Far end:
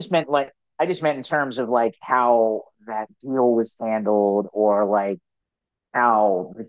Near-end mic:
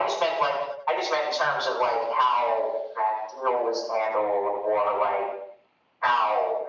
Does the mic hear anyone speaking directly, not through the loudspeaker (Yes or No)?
No